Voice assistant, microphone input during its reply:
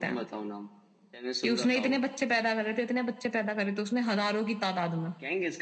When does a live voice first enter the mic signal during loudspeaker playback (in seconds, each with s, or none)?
none